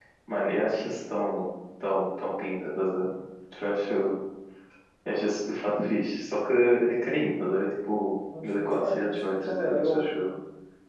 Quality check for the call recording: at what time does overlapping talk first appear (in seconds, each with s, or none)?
8.3 s